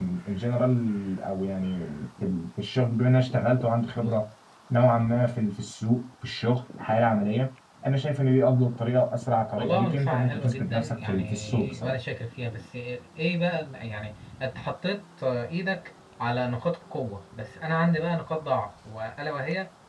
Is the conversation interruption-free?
No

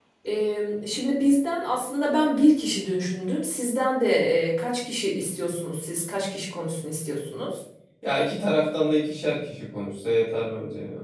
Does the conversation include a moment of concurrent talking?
No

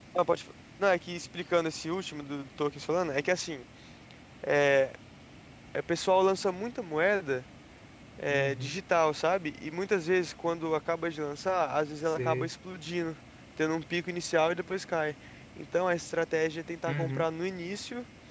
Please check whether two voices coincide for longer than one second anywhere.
No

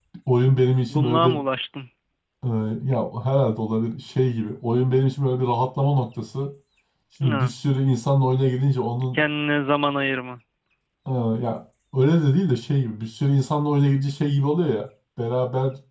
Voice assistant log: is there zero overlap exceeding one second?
Yes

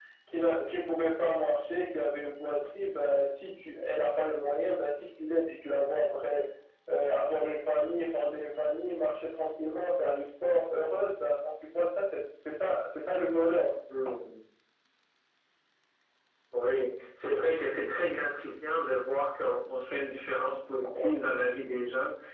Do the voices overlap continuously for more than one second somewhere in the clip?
No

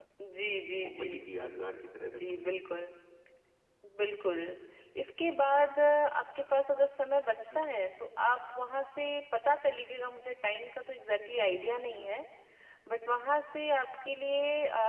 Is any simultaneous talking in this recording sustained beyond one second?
No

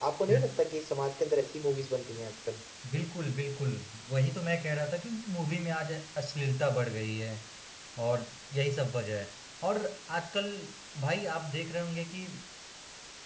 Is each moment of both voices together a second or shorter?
Yes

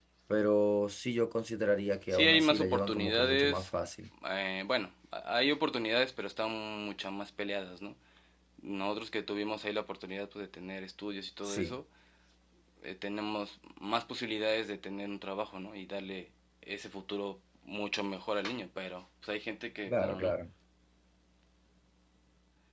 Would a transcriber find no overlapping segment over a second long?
No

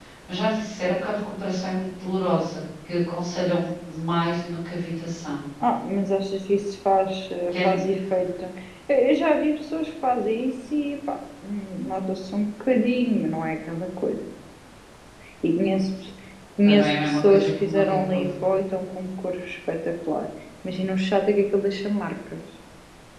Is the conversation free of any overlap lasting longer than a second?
No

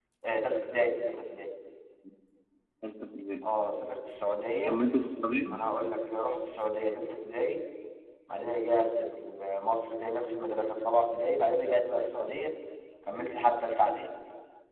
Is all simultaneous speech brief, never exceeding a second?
Yes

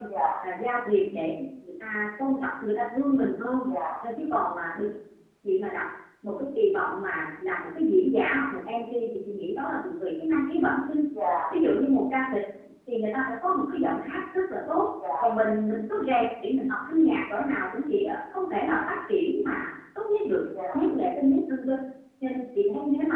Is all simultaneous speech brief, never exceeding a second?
Yes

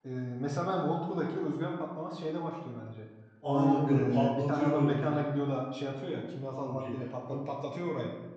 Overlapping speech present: Yes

